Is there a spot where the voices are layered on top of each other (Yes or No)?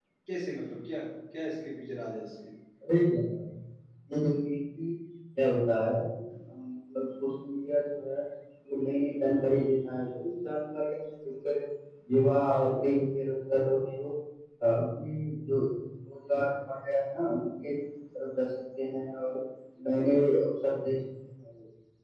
No